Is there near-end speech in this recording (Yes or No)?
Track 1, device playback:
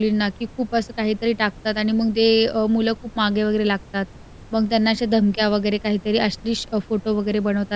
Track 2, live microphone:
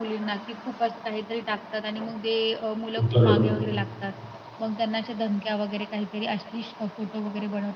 Yes